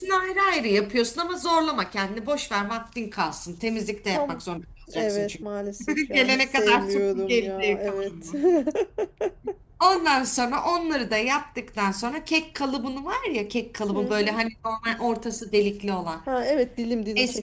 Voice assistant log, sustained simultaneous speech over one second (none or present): present